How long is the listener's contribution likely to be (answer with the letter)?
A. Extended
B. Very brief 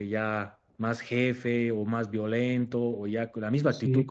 B